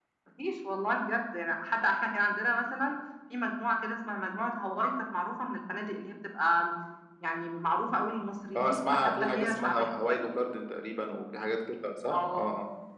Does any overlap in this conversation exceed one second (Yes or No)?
Yes